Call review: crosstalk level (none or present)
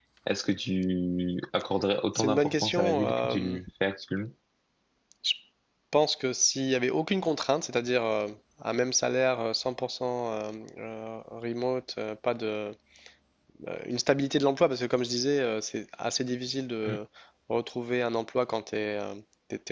present